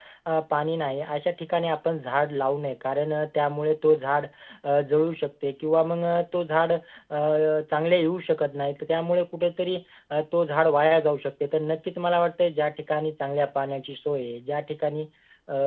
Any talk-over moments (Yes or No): No